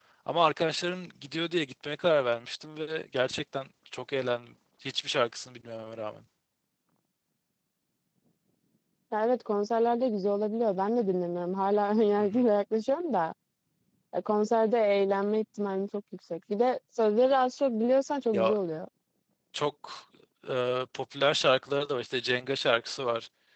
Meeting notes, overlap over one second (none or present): none